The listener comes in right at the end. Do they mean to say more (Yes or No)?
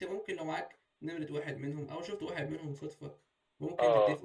No